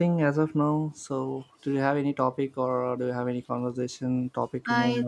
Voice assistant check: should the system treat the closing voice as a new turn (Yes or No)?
Yes